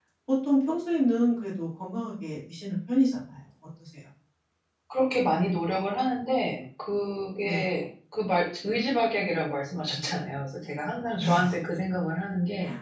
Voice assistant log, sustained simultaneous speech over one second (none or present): none